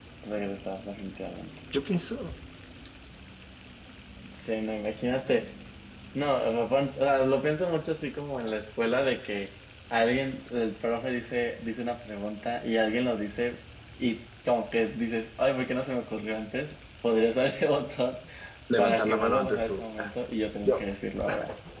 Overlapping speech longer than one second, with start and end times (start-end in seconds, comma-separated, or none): 18.8-20.1